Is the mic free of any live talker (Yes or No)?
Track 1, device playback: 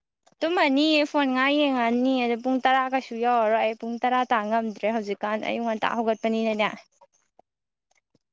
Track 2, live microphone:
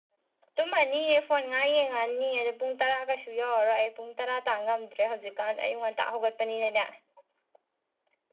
Yes